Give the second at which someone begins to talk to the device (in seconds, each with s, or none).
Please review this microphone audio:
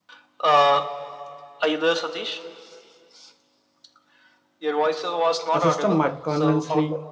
5.5 s